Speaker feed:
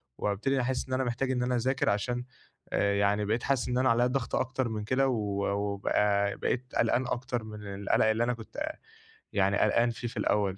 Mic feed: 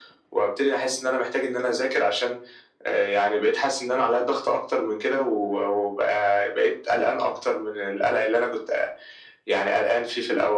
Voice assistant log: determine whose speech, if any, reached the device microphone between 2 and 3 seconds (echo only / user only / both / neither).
echo only